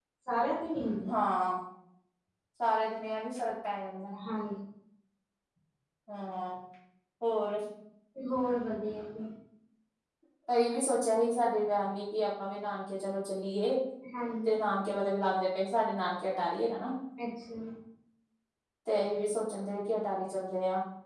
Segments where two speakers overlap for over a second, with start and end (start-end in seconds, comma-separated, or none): none